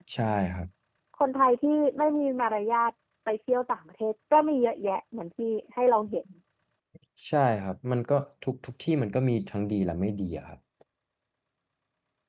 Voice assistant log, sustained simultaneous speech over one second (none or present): none